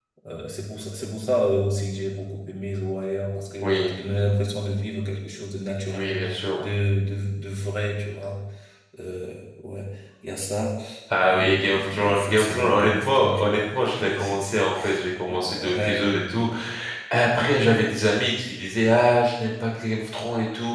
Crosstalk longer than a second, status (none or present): present